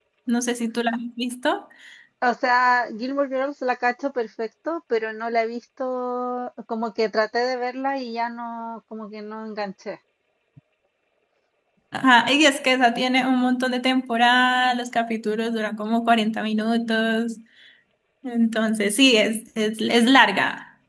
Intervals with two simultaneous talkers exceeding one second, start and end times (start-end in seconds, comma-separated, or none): none